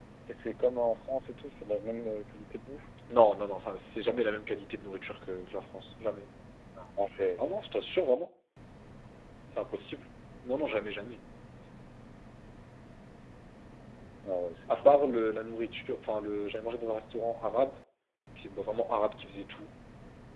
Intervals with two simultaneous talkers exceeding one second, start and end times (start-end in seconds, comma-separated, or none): none